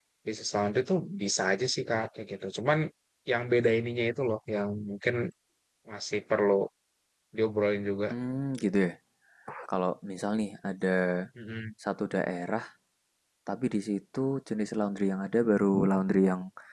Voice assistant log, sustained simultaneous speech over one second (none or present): none